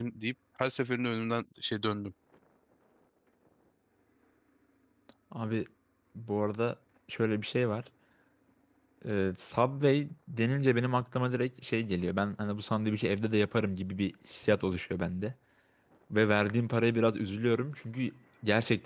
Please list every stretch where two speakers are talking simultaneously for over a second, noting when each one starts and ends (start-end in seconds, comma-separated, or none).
none